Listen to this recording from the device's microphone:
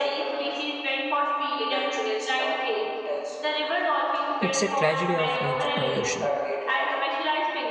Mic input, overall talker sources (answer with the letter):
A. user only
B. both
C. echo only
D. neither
B